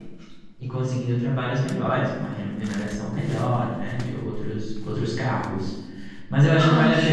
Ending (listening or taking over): listening